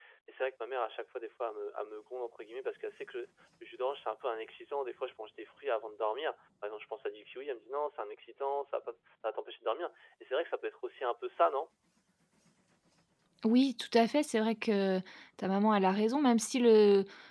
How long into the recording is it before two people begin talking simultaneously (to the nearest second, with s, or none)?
none